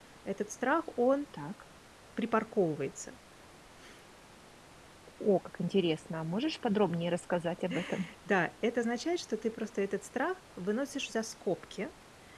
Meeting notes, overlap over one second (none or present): none